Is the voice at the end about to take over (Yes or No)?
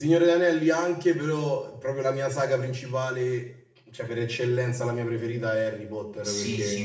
Yes